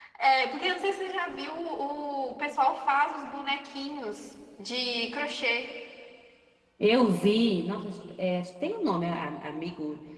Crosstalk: none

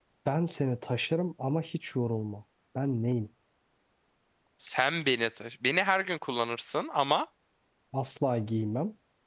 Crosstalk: none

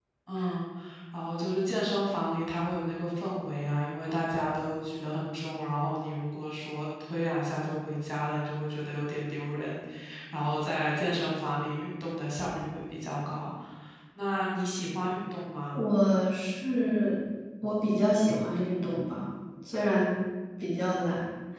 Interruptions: none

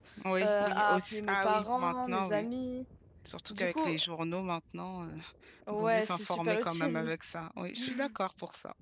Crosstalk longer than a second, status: present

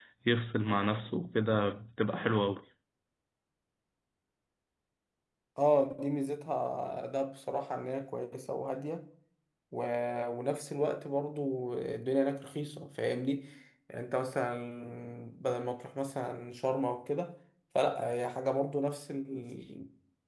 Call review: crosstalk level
none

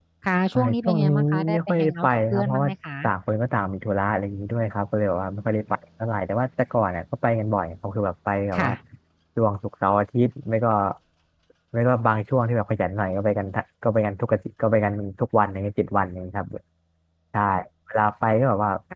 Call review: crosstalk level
present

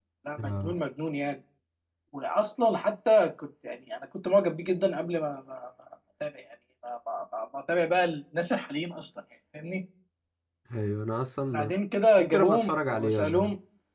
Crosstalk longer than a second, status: present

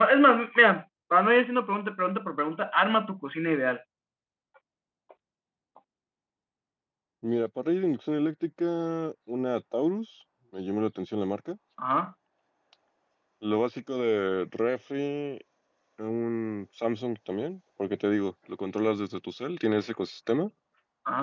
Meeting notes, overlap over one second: none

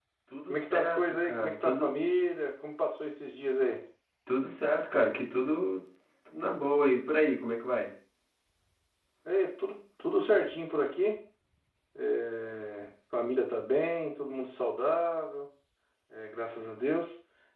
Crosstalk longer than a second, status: present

